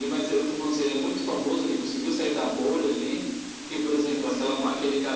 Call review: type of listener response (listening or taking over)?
listening